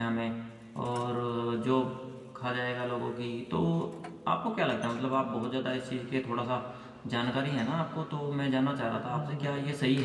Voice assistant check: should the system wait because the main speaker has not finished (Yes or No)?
Yes